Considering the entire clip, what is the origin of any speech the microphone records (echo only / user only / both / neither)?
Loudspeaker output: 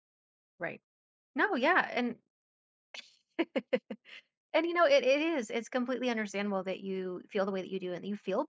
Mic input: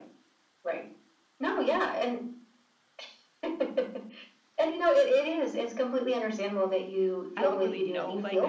both